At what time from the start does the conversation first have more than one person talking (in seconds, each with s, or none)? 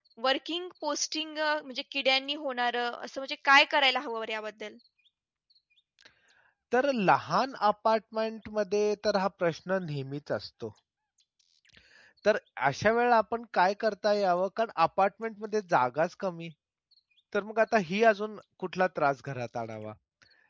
none